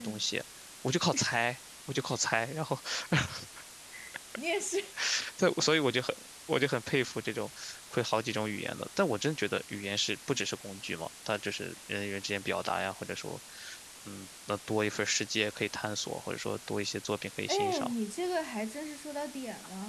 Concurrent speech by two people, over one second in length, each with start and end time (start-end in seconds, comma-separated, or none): none